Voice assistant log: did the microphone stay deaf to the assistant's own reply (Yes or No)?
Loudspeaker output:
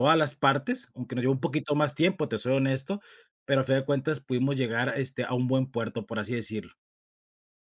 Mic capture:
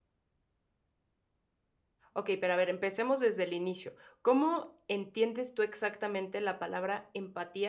Yes